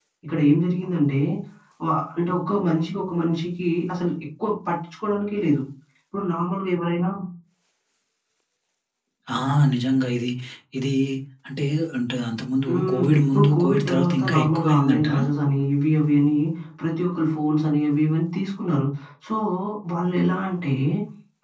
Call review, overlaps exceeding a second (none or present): present